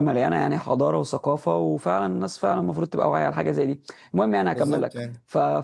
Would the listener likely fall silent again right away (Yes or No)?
Yes